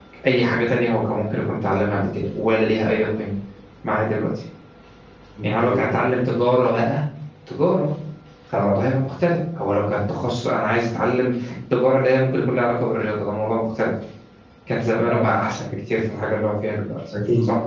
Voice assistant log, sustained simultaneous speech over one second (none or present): none